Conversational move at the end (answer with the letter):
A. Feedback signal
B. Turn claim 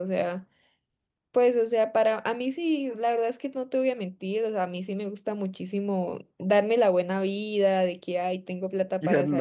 A